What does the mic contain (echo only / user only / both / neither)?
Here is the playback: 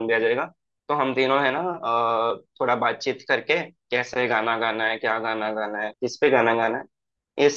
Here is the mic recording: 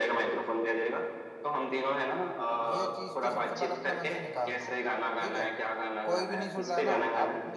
both